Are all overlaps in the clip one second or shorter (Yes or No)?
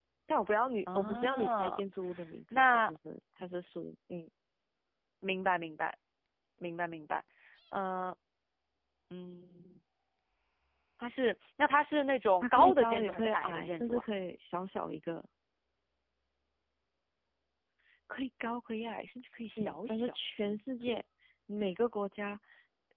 No